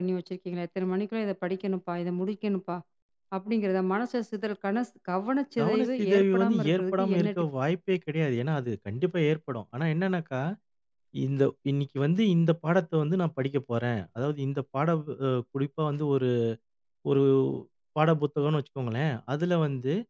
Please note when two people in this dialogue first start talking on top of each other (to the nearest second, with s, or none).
6 s